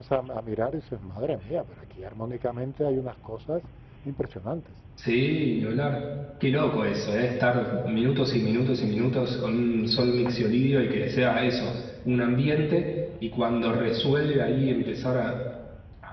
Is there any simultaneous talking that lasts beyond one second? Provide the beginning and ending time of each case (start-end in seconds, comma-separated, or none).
none